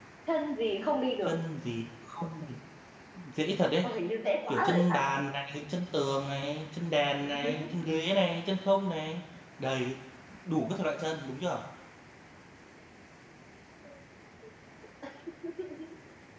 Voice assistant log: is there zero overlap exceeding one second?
Yes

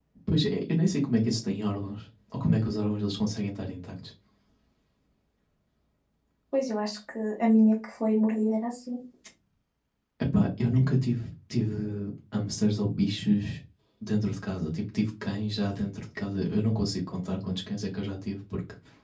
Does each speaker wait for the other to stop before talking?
Yes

